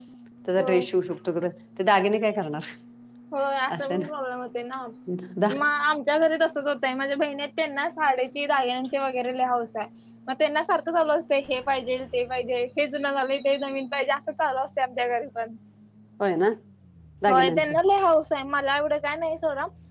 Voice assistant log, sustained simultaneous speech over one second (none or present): none